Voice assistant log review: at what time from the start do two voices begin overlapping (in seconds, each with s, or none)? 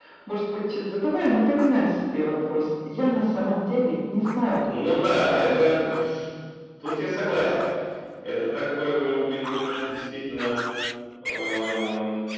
4.6 s